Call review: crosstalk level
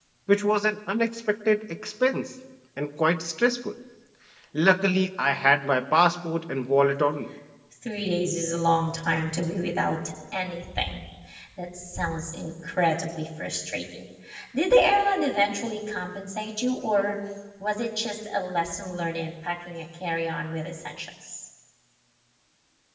none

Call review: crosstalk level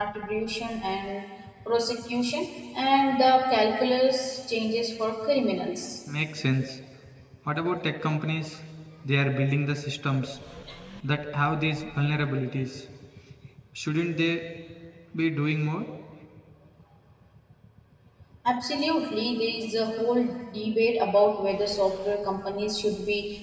none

